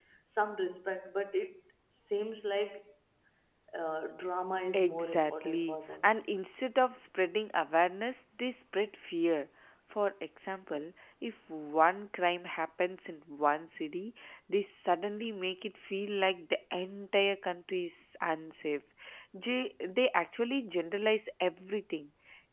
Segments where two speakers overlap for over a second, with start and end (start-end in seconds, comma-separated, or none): 4.7-6.0